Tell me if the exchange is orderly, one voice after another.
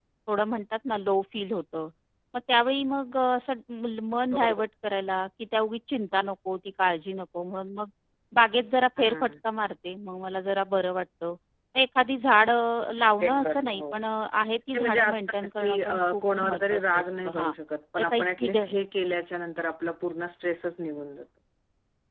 No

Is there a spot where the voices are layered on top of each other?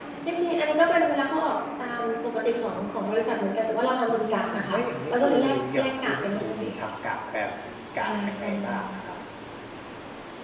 Yes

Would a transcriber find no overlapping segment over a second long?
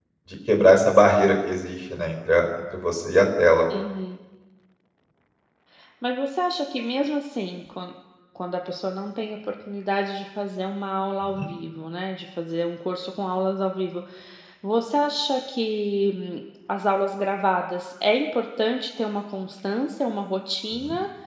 Yes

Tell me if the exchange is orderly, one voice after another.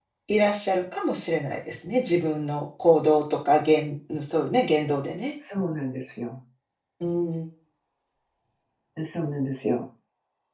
Yes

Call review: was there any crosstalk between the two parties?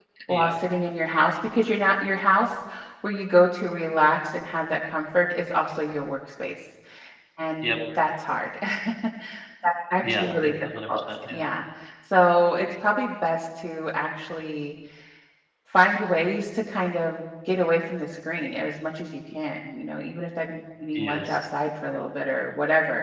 Yes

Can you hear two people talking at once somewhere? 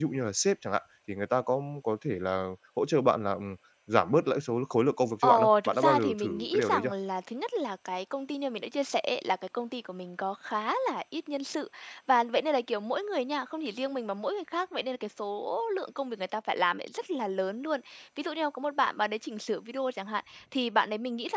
Yes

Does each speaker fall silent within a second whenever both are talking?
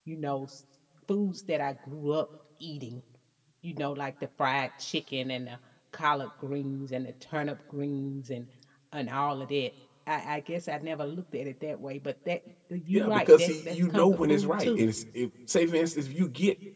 No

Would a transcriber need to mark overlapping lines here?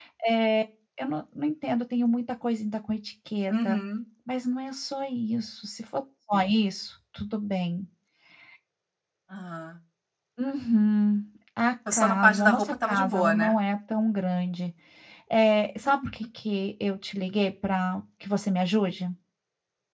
Yes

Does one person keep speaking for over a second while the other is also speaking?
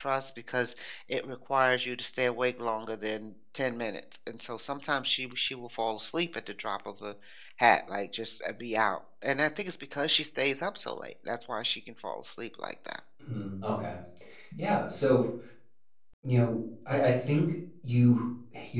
No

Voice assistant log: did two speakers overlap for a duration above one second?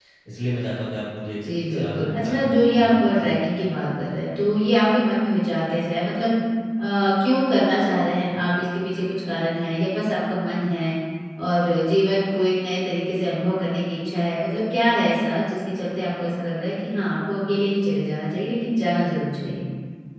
Yes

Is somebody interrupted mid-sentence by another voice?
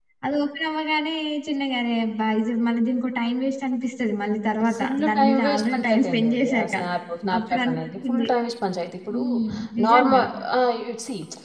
Yes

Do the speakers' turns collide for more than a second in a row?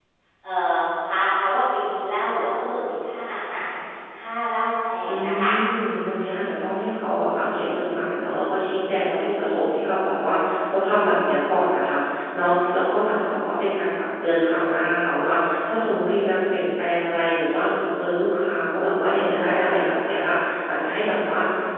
No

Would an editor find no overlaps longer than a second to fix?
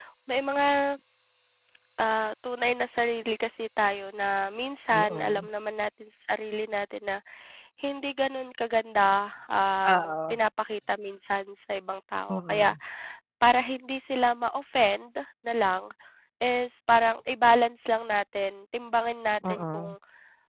Yes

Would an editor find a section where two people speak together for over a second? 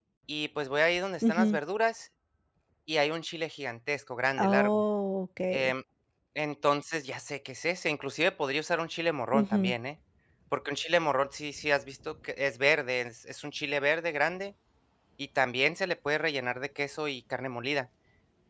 No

